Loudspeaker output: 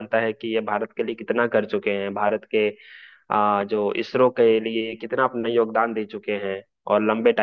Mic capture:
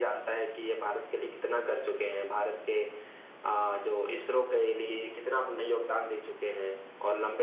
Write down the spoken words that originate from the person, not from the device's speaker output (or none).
none